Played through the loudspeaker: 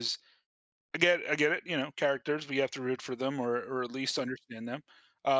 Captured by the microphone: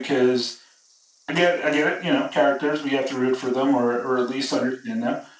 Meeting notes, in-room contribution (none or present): none